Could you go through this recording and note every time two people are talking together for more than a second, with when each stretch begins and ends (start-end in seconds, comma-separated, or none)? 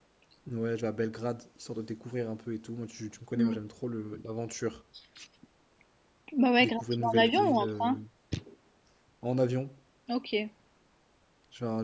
6.6-7.9